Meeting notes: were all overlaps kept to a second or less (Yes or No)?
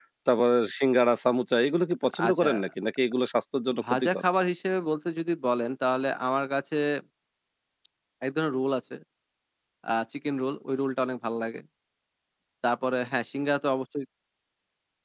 Yes